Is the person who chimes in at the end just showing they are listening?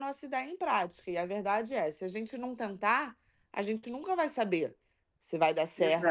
Yes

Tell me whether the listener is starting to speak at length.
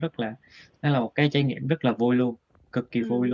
Yes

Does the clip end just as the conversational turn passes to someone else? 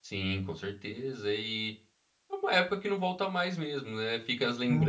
No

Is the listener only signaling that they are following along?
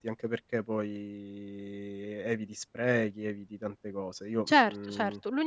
No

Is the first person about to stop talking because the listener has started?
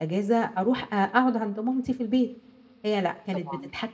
No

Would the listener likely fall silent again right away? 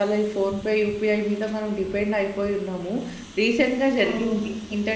Yes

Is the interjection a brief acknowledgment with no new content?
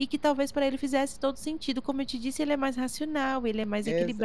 No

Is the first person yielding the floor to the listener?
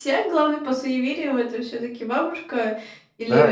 Yes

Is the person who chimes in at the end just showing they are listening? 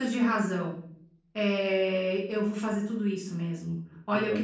Yes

